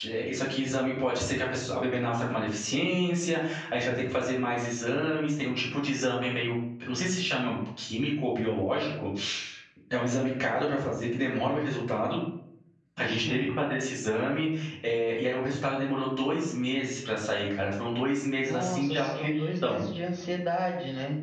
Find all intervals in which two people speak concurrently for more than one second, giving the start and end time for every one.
18.5-19.8

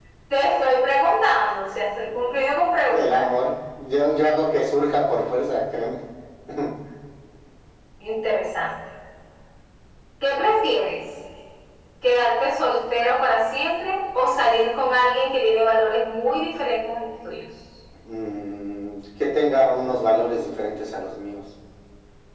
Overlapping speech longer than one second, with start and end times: 2.0-3.3

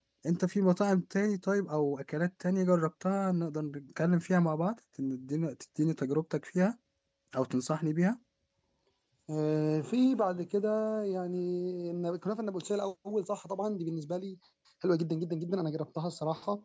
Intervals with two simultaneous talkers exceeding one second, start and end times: none

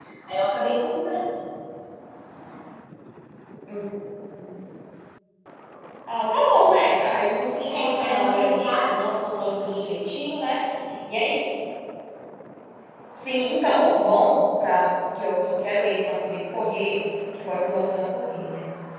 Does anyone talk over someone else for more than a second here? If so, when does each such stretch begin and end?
7.7-9.0

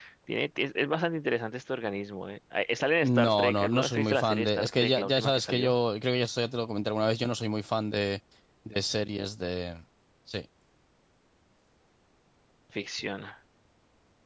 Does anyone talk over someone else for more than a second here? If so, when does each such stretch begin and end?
3.0-5.7

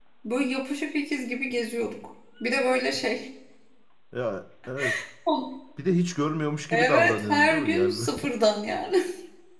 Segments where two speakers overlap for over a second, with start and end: 6.7-8.1

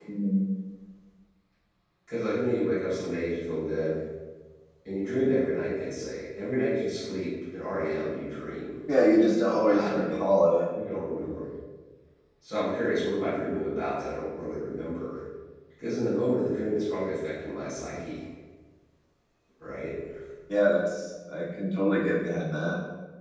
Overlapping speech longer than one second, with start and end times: none

